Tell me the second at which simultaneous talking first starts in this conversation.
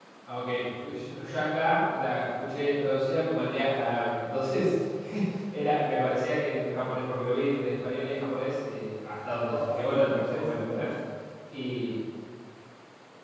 9.4 s

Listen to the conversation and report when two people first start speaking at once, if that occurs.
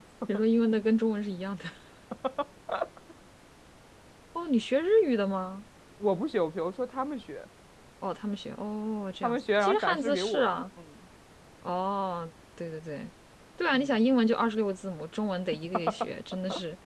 9.2 s

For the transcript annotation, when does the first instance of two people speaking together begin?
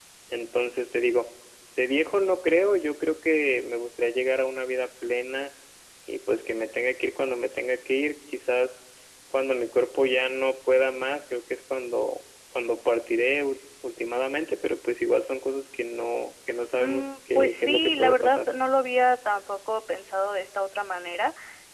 16.8 s

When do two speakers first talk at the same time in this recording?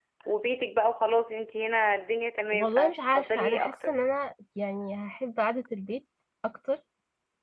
2.5 s

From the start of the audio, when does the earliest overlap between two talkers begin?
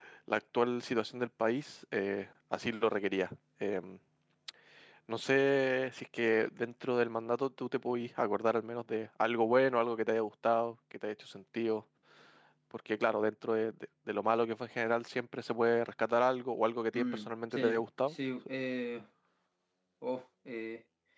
16.9 s

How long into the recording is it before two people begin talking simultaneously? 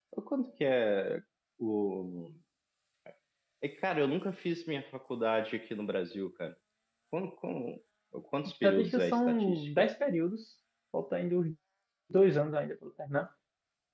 8.6 s

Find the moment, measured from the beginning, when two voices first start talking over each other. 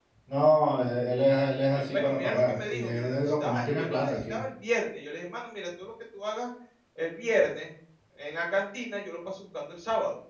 1.8 s

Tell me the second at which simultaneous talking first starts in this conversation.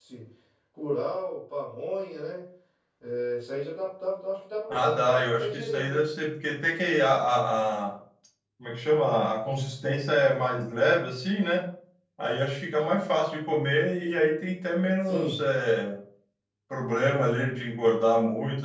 4.7 s

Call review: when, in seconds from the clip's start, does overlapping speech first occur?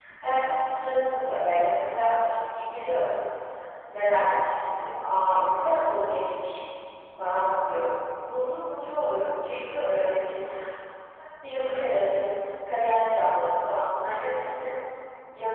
none

